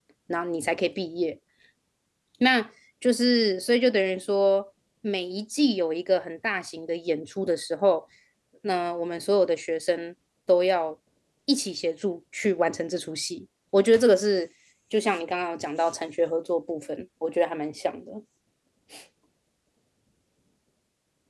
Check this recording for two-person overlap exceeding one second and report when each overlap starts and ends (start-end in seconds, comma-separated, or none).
none